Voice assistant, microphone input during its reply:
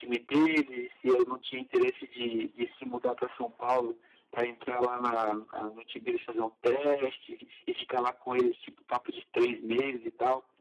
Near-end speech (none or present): none